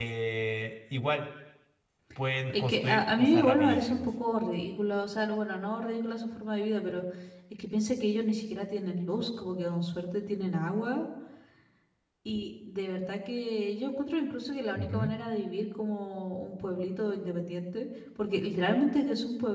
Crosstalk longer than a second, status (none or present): present